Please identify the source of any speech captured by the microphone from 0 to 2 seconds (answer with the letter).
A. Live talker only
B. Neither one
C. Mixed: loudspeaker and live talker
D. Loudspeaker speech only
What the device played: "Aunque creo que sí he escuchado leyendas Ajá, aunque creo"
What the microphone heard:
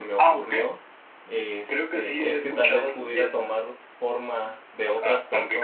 C